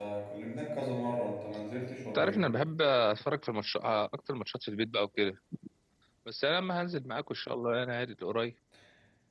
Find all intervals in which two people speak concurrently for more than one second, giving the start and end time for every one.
none

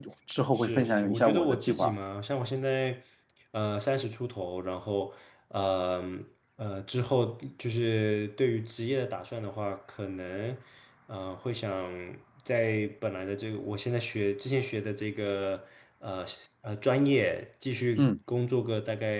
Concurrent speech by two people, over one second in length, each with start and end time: 0.6-1.9

